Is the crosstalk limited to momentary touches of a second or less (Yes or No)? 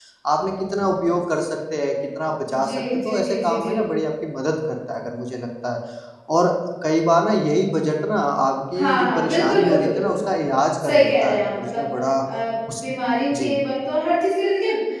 No